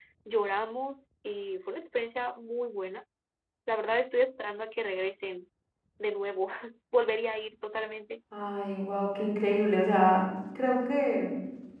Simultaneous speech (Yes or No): No